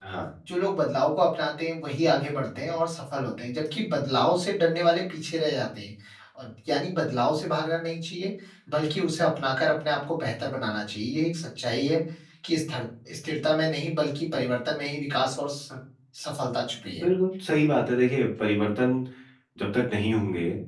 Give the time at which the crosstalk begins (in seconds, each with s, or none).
none